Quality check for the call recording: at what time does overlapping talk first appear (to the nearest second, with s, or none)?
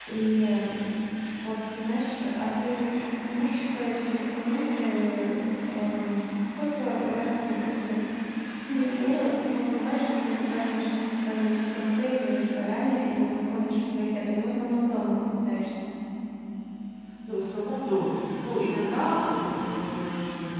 none